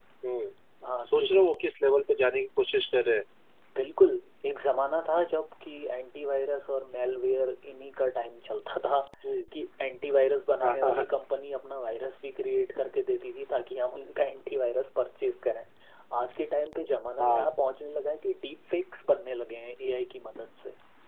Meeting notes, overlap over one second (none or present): none